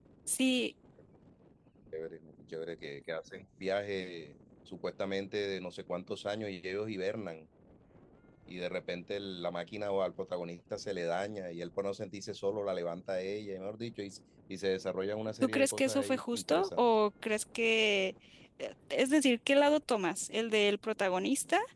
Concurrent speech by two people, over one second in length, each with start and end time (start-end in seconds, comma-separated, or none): 15.4-16.9